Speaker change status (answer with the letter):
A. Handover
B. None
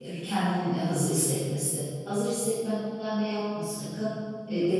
B